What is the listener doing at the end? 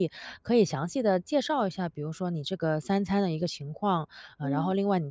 listening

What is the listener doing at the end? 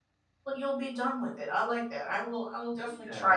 taking over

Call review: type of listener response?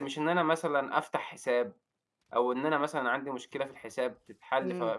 taking over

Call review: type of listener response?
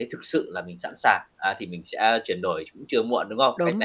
taking over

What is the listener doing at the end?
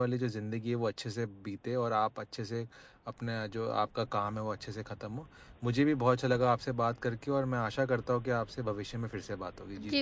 taking over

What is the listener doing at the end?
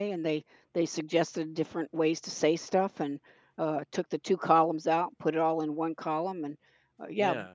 listening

